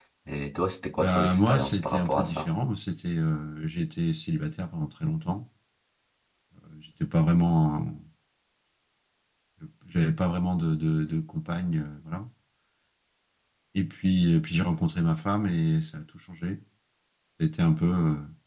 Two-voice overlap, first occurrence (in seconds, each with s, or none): 1.0 s